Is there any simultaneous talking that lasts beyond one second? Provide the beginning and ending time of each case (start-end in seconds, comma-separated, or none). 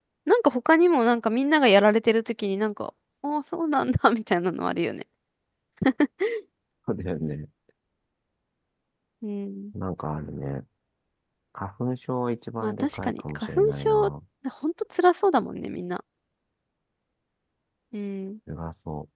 12.6-13.9